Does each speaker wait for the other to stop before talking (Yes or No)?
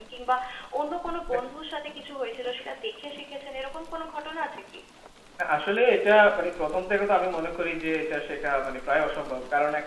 Yes